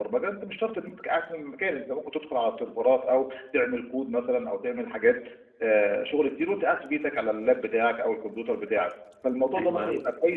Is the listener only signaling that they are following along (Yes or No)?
Yes